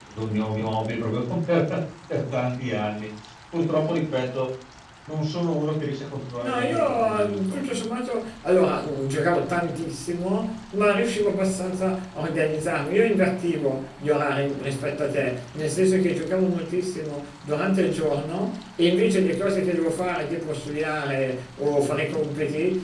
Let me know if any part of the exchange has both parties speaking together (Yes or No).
Yes